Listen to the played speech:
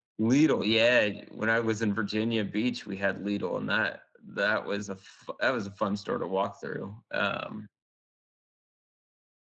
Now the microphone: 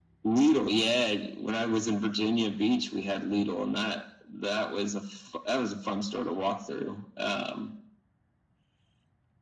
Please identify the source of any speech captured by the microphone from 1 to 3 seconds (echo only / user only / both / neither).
echo only